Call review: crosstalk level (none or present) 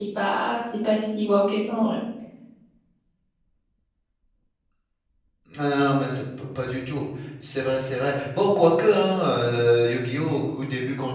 none